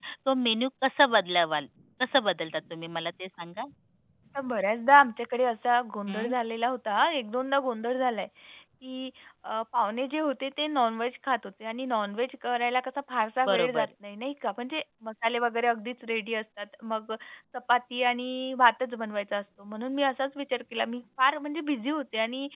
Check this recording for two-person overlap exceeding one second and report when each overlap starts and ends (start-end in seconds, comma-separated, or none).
none